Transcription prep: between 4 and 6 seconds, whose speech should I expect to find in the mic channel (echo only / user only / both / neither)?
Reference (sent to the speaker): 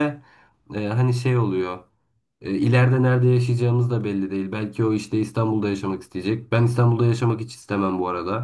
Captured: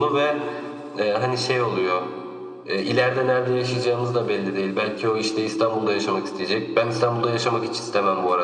echo only